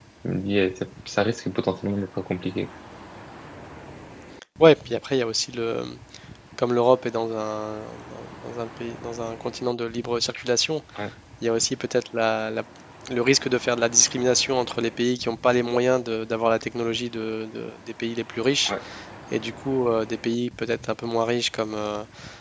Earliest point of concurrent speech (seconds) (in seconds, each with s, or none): none